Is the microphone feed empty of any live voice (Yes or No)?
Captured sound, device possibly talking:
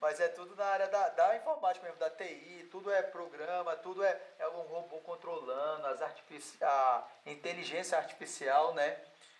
Yes